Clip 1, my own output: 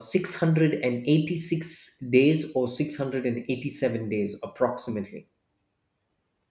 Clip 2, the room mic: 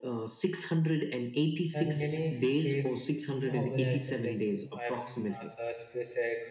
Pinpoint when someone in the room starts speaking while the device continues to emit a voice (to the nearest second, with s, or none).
2 s